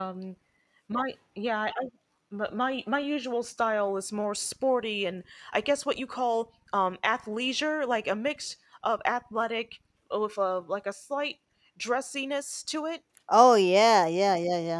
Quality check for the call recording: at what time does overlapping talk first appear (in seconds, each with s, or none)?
none